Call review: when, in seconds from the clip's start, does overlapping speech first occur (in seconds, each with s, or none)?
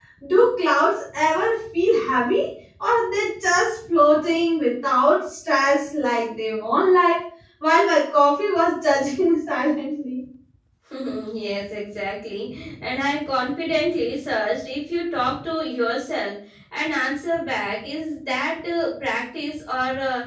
none